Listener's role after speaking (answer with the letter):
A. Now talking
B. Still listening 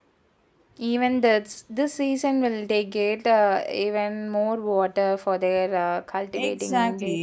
A